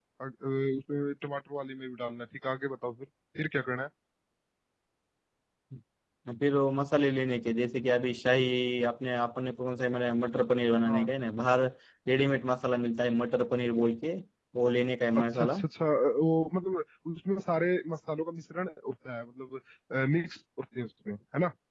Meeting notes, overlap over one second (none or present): none